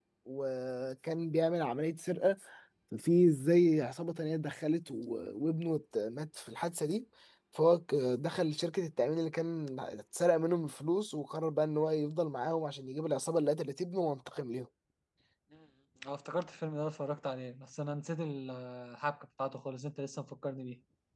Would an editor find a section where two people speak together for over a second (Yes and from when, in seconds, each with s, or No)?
No